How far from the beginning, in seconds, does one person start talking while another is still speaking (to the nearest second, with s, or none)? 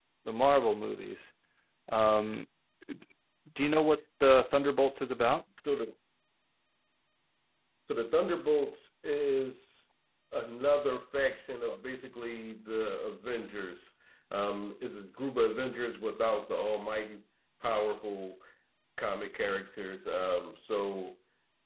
none